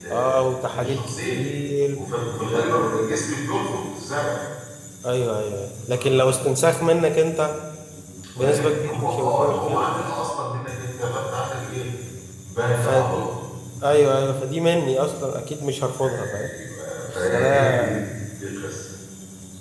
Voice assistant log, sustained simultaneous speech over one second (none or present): present